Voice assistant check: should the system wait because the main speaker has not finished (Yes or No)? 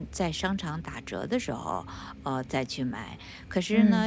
Yes